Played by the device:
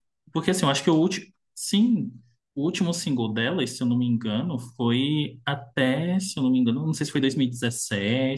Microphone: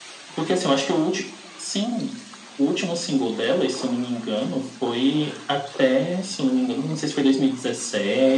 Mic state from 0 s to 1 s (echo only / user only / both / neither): echo only